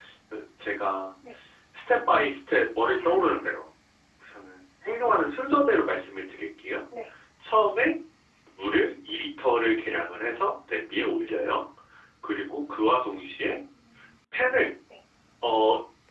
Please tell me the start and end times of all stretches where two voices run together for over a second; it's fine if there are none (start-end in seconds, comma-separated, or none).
none